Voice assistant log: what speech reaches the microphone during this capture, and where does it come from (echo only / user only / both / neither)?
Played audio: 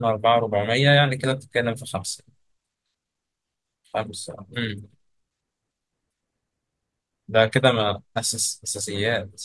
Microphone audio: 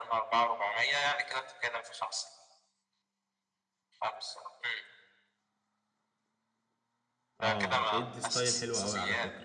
both